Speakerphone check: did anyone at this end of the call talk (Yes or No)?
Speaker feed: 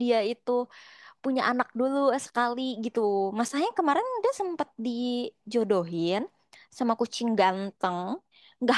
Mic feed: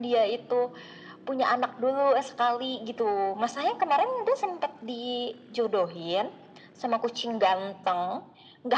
No